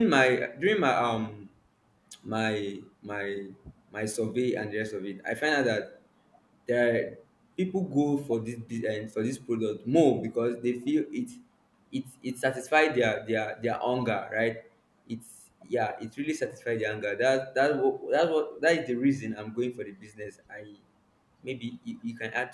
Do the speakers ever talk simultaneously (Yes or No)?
No